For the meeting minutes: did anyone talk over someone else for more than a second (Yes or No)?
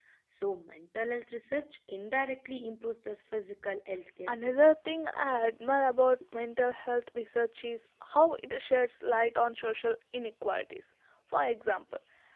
No